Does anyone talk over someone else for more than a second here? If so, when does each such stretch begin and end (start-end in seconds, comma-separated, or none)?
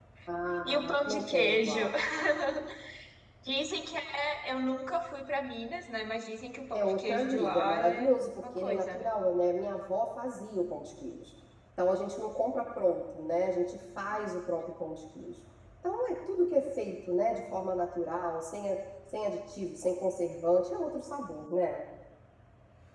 0.7-1.9, 6.7-9.1